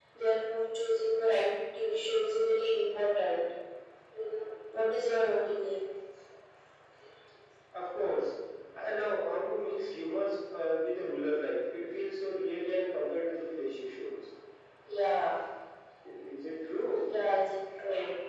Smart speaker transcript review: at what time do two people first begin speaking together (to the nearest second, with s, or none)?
none